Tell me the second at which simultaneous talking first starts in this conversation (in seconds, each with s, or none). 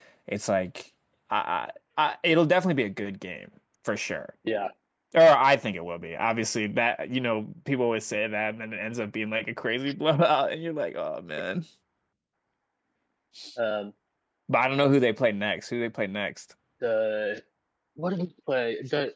none